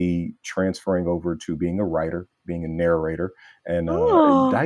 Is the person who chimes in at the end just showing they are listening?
Yes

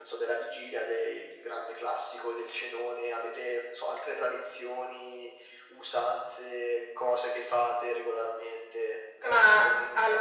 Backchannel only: No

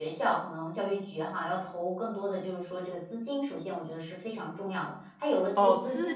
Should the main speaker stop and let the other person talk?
Yes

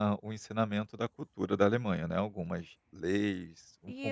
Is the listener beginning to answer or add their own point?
Yes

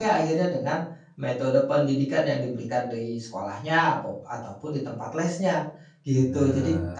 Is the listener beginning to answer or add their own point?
No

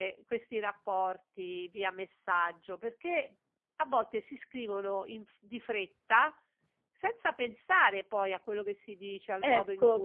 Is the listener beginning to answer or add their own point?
Yes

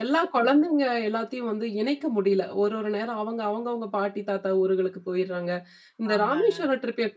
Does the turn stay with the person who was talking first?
Yes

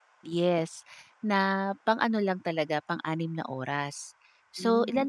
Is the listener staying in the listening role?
Yes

